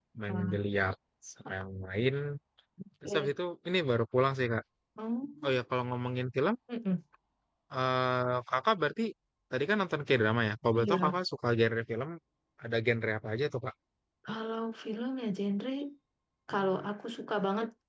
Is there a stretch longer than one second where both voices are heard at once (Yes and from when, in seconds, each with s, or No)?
No